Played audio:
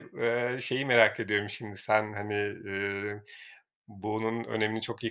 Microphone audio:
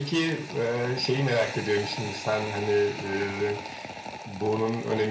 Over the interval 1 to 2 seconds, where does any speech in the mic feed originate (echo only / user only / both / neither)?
echo only